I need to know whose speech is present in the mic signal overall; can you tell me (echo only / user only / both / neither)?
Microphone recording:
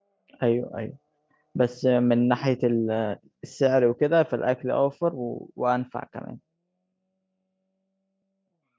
user only